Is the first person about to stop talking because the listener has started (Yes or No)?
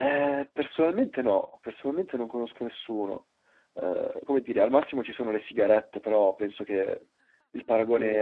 Yes